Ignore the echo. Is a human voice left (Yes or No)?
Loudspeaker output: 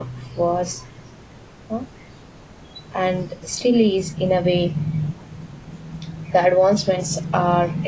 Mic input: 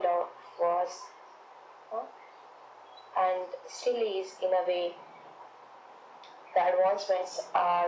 No